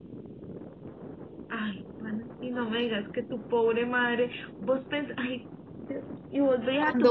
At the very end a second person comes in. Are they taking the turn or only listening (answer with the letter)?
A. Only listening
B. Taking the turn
A